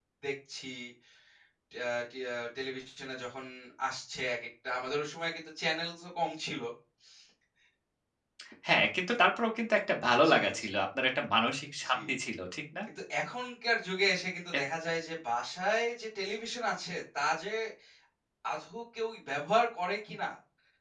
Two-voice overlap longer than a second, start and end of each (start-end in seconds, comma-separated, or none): none